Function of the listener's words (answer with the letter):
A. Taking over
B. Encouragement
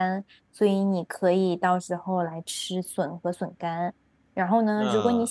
B